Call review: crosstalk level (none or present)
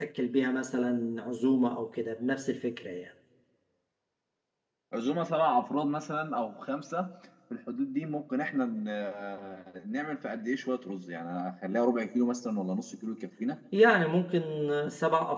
none